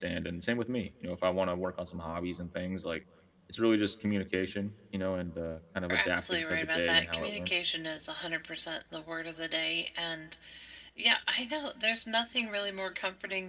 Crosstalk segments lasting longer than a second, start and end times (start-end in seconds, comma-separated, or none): 5.9-7.5